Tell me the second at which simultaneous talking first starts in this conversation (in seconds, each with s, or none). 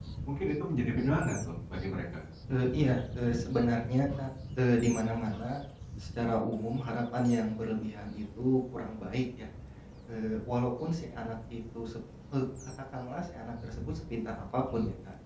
none